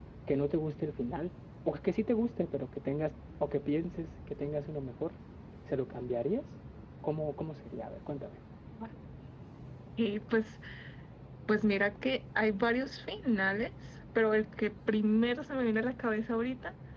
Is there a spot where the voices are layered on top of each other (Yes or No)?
No